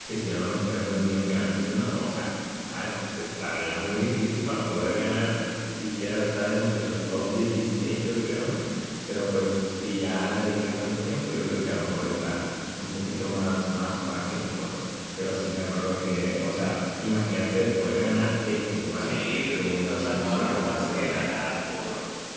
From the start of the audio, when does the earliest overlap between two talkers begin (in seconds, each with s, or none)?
19.0 s